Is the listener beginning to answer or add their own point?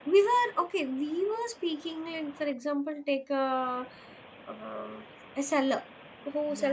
No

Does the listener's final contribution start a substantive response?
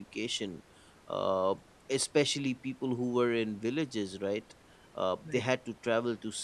No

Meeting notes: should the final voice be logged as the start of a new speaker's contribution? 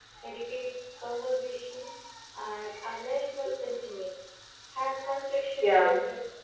No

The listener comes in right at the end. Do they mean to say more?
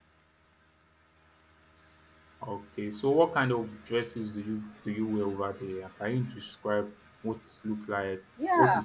Yes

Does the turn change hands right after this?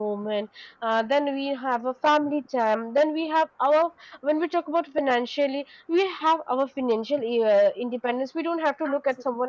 No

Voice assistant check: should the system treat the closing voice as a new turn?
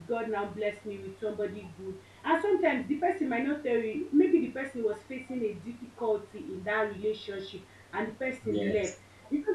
No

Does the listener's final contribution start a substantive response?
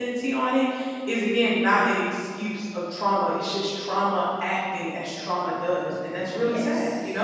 Yes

